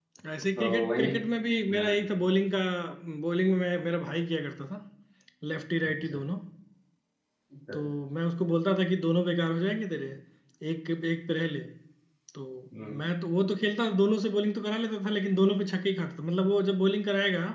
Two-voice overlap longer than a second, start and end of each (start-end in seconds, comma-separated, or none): none